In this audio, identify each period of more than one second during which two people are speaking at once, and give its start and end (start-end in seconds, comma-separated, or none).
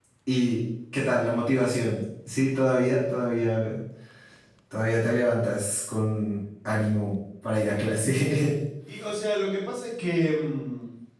none